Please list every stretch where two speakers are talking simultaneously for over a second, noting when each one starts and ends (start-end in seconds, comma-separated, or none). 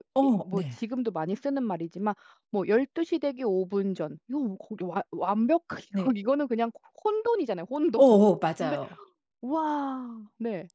none